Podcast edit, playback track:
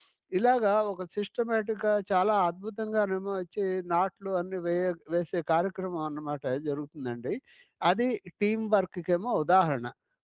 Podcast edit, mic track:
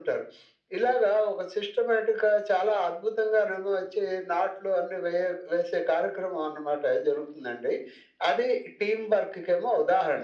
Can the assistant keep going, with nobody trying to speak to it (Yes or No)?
Yes